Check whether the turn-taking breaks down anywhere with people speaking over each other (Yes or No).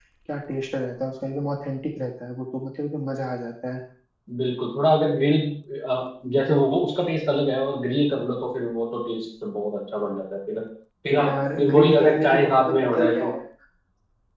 Yes